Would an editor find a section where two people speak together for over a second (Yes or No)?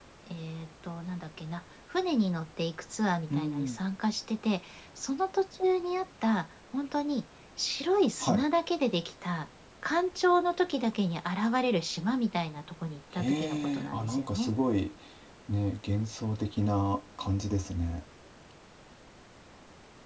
Yes